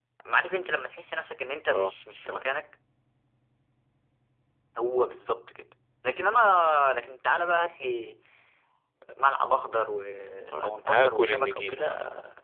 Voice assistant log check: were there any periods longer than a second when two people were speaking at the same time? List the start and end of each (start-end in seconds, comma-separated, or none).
10.6-11.8